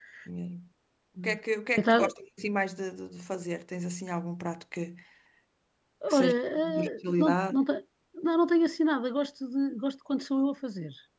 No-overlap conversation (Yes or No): No